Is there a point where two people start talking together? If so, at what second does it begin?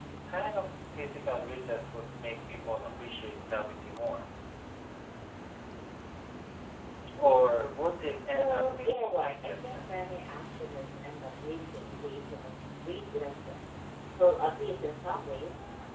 8.3 s

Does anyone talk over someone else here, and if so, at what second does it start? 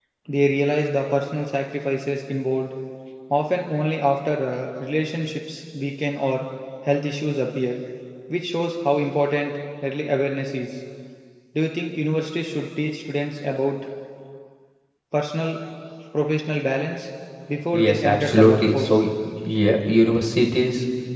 17.7 s

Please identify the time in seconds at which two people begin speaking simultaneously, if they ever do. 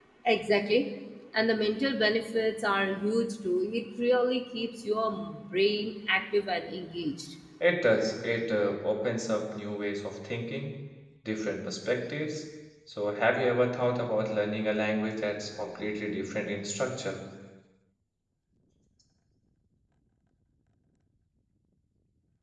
none

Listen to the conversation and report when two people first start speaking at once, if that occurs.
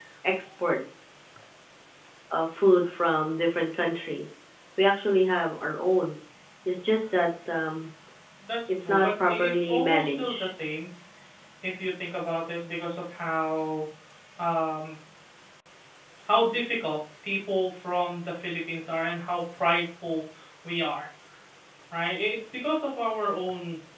8.7 s

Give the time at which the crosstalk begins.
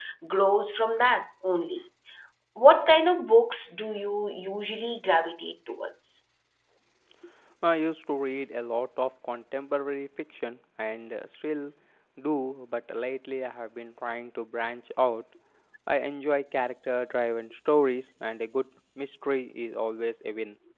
none

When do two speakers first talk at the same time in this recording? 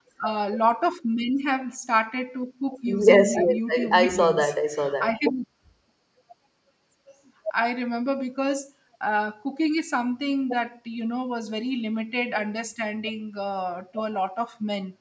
2.9 s

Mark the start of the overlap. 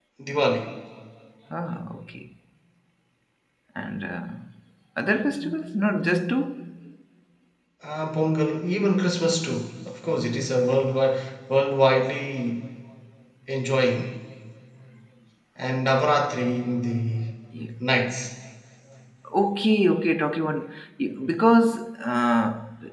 none

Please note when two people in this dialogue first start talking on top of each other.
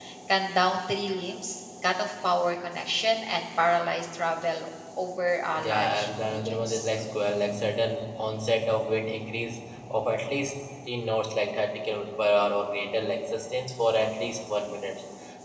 5.5 s

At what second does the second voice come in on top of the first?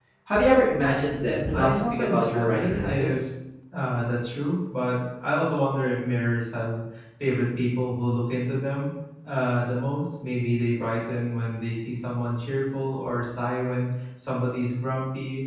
1.5 s

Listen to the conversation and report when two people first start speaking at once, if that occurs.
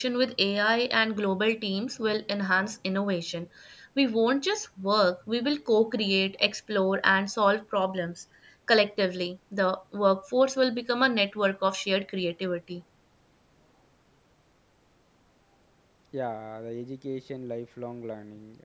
none

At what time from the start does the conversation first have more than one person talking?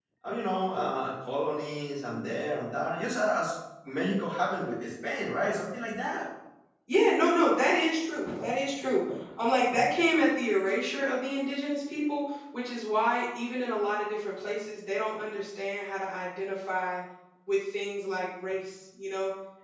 none

